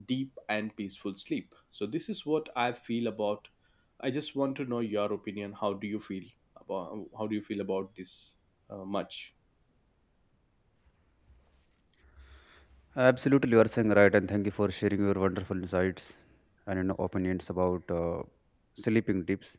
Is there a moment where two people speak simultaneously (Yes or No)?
No